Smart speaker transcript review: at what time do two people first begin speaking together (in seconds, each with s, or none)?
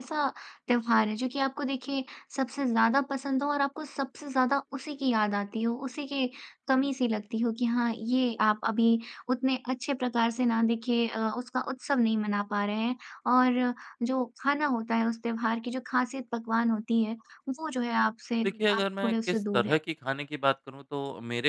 18.4 s